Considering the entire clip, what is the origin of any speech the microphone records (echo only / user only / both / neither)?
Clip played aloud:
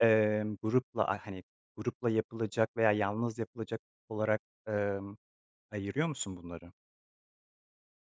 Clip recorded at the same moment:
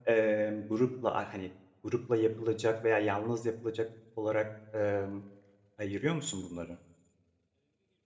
echo only